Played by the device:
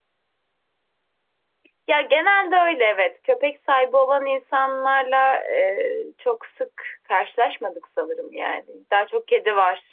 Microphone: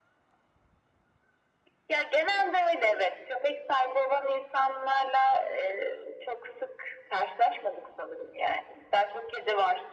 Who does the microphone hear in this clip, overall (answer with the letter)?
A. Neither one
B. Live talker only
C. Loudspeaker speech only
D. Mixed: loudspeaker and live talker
C